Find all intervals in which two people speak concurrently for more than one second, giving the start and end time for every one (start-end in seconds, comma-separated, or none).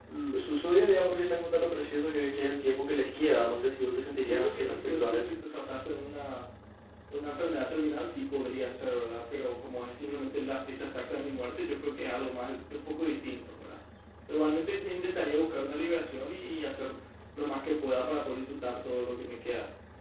4.1-5.4